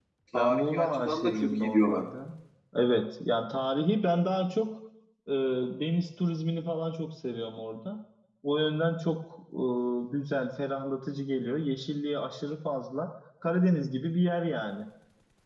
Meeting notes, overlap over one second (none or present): present